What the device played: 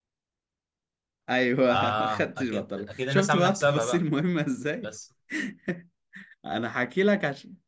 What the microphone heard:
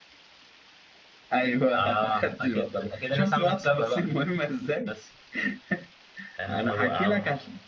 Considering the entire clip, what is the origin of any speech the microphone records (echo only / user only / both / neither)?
both